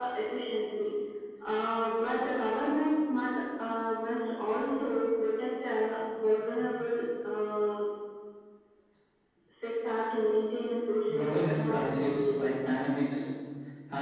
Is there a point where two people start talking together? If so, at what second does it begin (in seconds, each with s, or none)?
11.1 s